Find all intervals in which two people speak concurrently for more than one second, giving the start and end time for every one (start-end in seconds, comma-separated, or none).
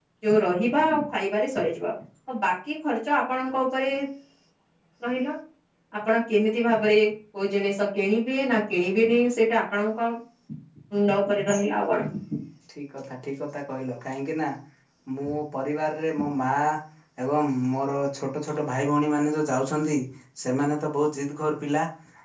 none